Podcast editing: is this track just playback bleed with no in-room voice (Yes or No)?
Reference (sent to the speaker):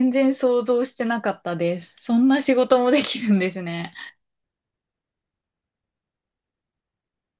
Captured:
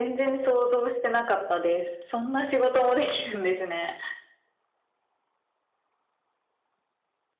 Yes